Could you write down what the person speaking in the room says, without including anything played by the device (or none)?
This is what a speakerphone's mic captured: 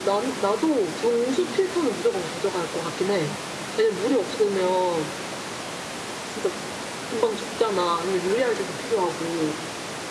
none